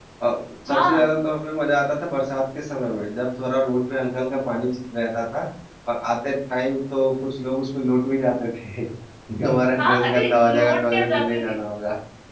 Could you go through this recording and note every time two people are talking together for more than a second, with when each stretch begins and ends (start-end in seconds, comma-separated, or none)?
9.8-11.6